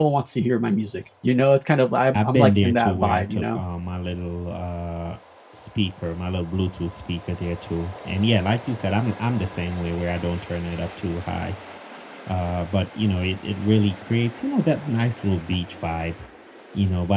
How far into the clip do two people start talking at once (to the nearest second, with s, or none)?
2 s